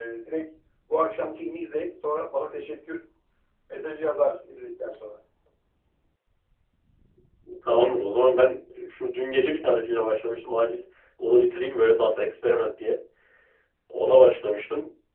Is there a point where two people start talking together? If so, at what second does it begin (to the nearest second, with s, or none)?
none